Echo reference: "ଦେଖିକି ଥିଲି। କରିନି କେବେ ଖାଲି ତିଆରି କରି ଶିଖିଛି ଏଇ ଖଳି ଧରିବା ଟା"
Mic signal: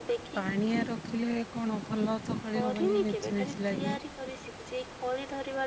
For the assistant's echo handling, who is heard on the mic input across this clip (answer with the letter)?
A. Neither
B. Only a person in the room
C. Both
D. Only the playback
C